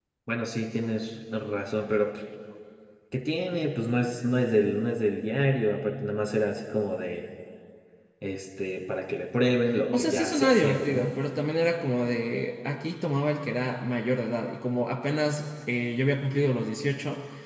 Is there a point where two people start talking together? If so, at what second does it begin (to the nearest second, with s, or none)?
10 s